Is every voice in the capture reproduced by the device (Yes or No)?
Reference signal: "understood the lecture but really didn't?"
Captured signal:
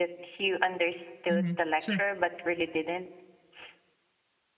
No